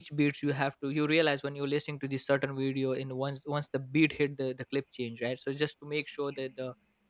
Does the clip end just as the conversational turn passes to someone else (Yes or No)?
No